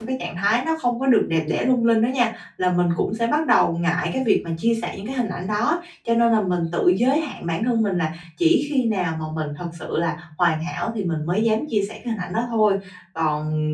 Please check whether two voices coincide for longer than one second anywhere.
No

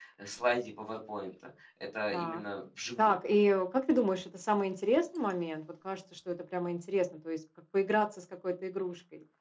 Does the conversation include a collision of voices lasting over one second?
No

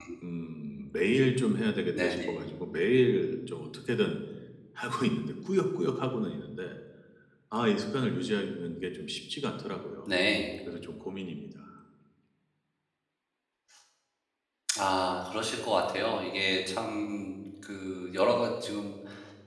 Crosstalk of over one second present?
No

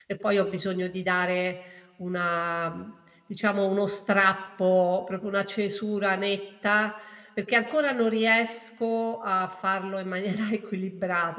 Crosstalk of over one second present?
No

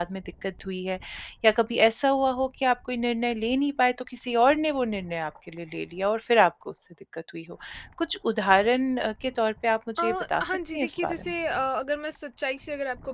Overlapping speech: Yes, from 10.0 s

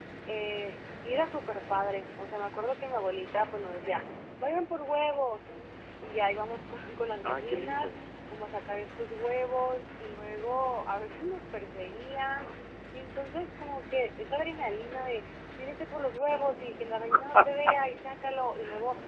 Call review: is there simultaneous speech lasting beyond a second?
Yes, from 6.5 s

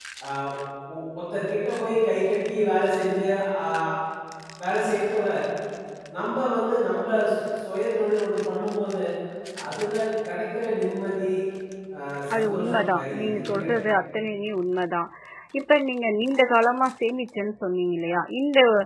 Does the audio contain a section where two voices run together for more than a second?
Yes, from 12.3 s

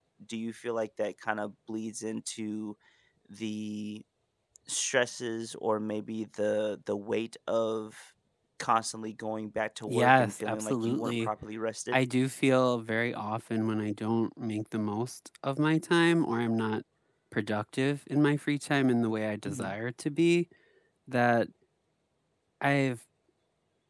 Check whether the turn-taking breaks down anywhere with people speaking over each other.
Yes, from 9.9 s

